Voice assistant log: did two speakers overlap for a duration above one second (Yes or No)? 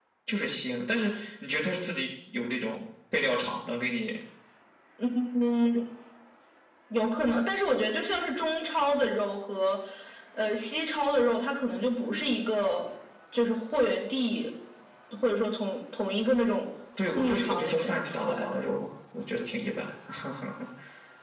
Yes